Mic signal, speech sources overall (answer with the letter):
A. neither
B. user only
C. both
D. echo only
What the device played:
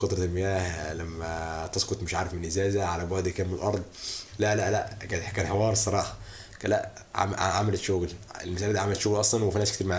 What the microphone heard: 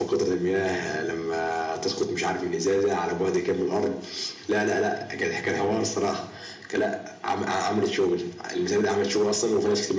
D